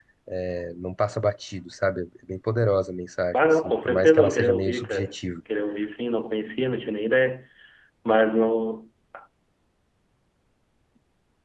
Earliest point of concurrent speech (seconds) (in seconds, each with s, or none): 3.3 s